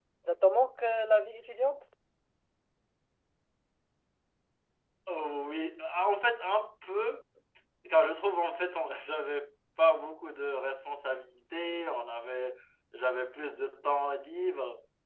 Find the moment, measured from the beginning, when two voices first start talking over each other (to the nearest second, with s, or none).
none